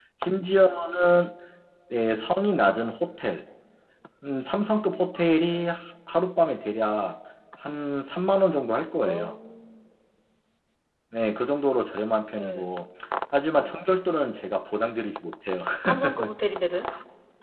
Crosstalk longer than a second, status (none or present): none